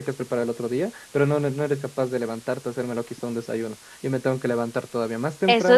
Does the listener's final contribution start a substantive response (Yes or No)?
Yes